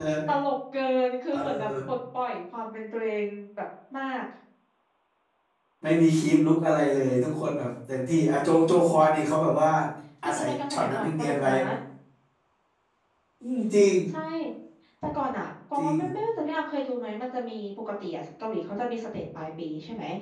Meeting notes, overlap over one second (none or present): present